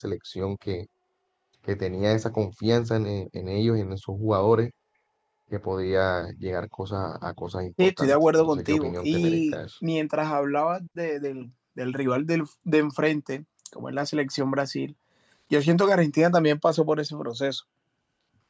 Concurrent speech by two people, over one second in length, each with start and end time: 7.8-9.5

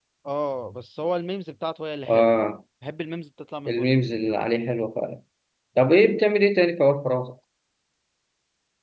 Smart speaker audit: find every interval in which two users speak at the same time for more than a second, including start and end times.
none

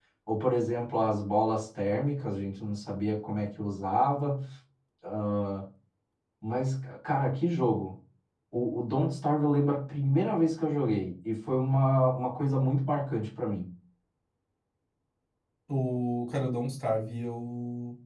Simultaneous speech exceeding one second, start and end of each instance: none

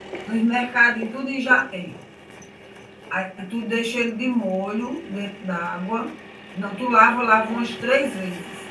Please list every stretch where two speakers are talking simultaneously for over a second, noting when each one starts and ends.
none

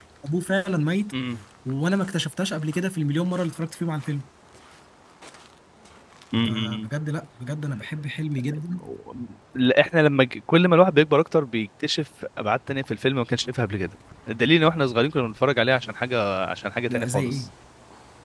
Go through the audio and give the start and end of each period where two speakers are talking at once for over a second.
none

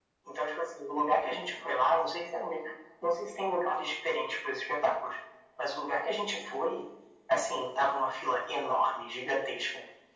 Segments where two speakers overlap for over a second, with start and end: none

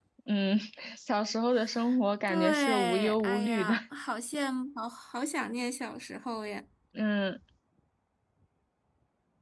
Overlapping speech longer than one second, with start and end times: 2.3-3.7

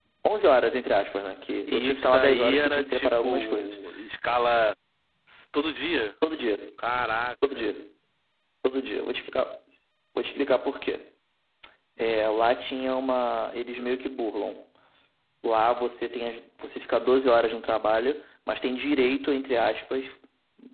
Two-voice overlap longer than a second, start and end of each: 1.7-3.8

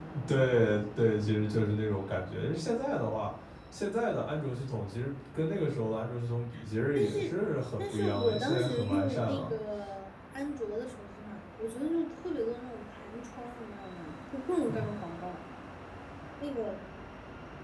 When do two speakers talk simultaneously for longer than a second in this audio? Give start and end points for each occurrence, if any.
7.8-9.5

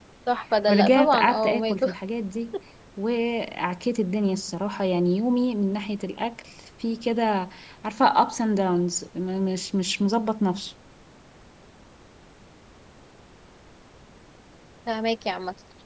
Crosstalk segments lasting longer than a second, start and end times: 0.7-1.9

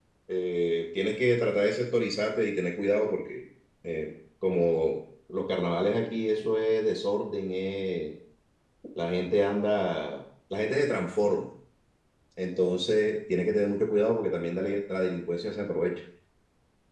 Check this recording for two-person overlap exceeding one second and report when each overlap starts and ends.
none

